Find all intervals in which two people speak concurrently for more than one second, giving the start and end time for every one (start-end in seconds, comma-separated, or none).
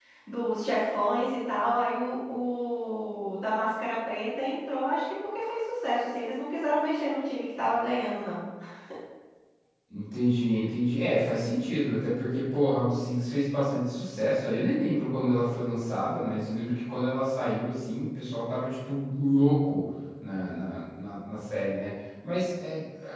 none